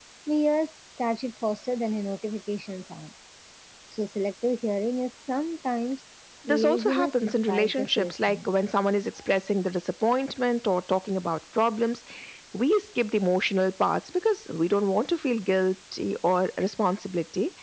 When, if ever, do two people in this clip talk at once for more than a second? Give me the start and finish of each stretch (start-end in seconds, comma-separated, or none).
6.5-8.5